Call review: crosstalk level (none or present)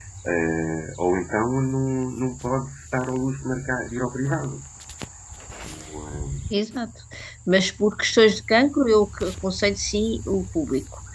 none